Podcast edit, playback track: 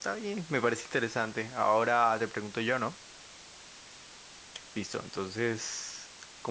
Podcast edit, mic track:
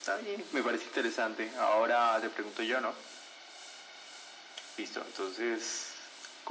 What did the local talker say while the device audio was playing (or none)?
none